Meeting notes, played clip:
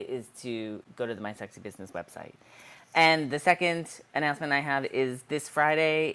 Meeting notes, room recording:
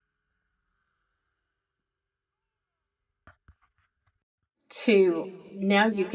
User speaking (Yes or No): Yes